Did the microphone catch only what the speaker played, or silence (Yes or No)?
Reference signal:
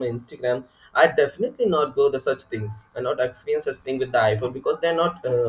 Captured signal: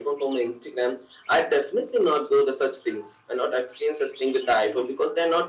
Yes